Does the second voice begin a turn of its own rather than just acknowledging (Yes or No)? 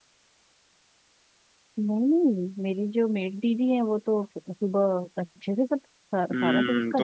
Yes